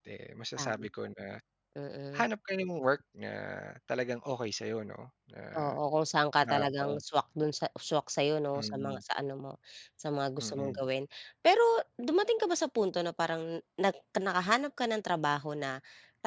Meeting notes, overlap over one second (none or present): none